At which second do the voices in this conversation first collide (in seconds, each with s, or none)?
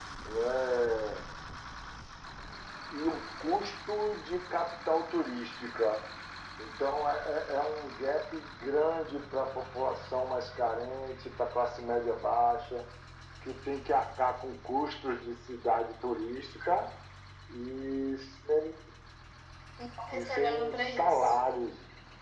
20.1 s